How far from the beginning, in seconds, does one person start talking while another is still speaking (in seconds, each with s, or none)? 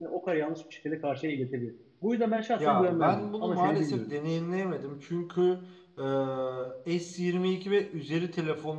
2.6 s